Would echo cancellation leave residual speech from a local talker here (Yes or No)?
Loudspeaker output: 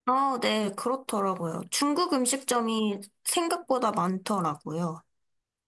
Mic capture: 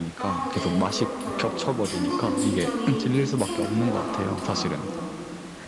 Yes